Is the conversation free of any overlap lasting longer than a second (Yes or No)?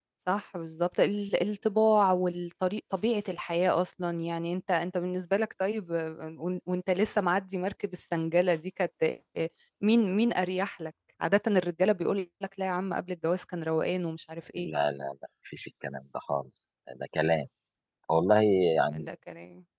Yes